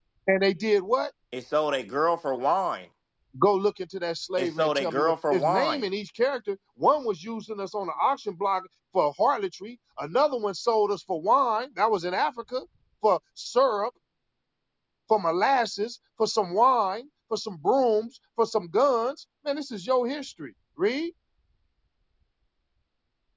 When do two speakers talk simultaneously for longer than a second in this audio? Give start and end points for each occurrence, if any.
4.4-5.8

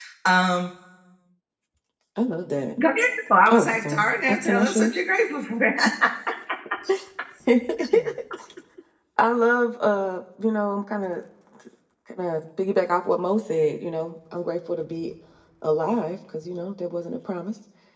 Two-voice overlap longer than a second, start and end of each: 3.5-4.9

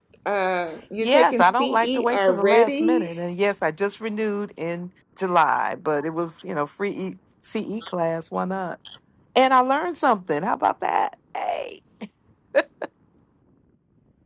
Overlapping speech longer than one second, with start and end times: 1.0-3.1

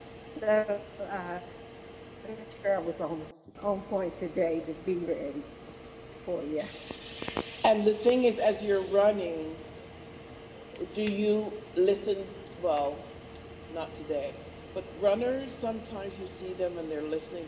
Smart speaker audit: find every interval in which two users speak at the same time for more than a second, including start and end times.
none

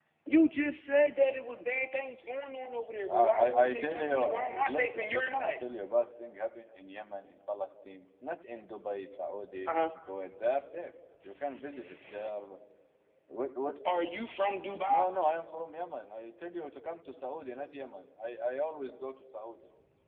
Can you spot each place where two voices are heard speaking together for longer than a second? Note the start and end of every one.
3.1-5.5

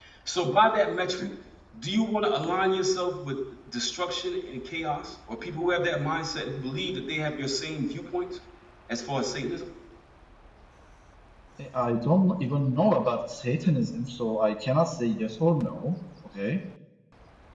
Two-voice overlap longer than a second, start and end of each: none

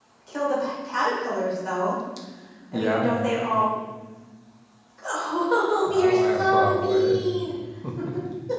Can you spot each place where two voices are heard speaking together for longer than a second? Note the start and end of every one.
5.9-7.2

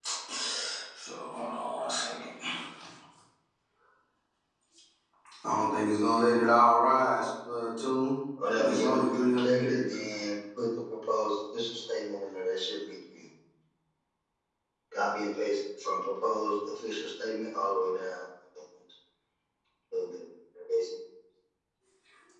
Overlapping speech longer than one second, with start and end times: 8.6-10.0

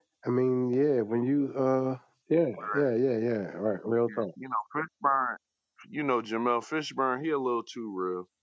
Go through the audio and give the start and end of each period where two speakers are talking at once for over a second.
none

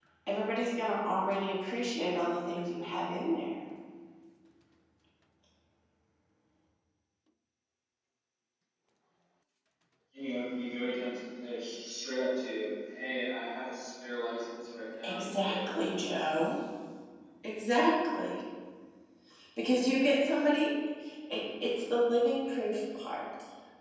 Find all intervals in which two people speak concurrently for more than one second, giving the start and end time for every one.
15.0-16.3

